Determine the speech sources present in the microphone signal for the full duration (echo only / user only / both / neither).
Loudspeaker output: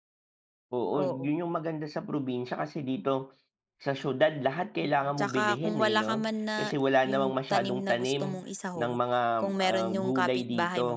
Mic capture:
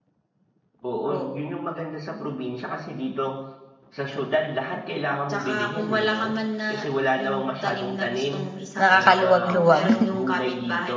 both